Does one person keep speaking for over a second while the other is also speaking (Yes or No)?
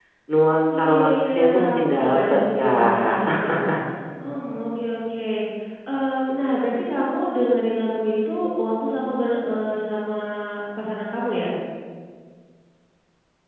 Yes